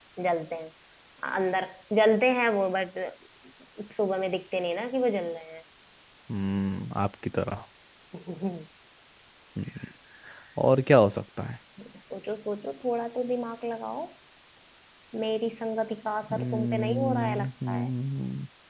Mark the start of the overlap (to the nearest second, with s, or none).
16 s